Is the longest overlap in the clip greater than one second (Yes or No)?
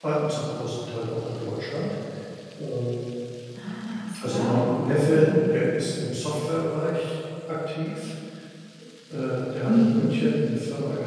No